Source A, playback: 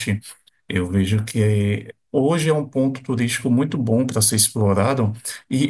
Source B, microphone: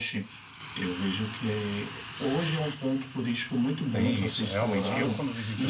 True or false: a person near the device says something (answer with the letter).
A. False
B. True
B